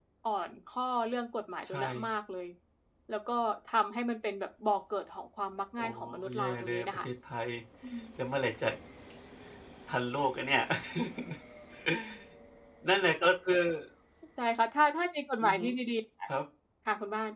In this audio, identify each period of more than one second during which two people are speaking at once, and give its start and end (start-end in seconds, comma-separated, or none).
5.8-7.1